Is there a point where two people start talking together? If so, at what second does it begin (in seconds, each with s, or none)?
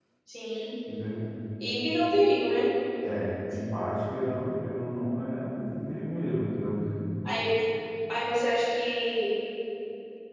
none